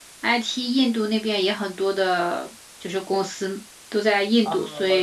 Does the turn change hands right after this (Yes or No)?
Yes